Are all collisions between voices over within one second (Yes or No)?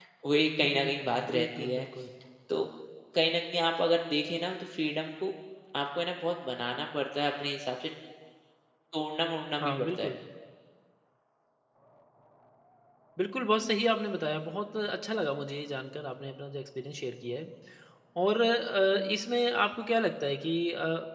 No